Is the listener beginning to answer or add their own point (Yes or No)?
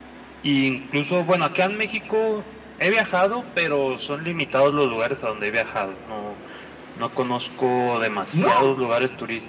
No